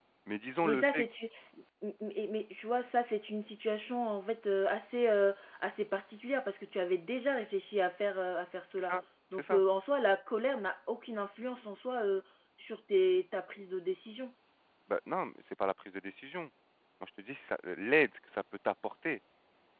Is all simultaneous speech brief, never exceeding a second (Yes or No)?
Yes